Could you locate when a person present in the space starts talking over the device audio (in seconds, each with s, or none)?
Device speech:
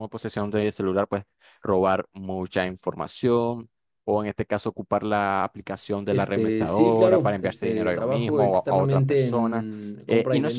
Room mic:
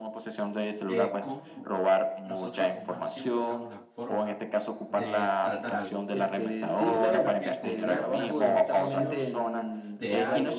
0.9 s